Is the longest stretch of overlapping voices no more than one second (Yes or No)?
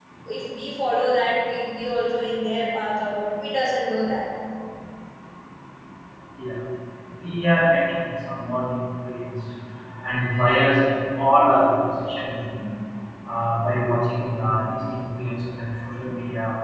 Yes